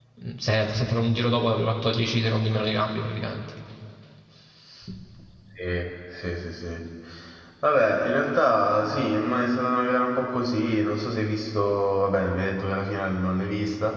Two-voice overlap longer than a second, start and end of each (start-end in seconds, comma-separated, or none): none